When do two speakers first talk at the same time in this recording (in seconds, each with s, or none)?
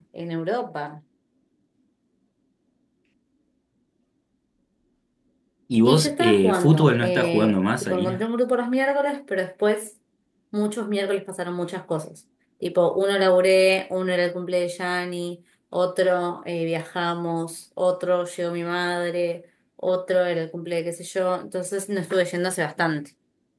5.8 s